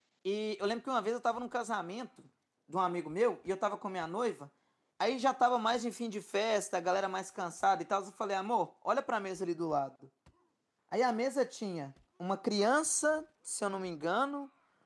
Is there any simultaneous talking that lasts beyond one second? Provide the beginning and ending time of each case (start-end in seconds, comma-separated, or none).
none